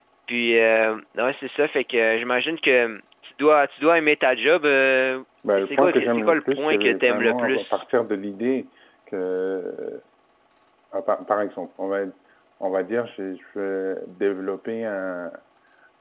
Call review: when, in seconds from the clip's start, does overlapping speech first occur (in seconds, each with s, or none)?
5.4 s